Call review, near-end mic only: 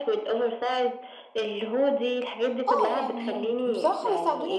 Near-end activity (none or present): present